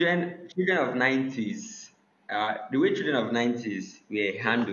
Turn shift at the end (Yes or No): No